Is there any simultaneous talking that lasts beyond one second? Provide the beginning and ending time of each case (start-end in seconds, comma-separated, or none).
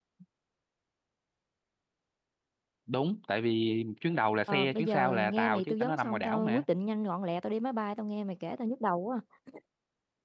4.5-6.6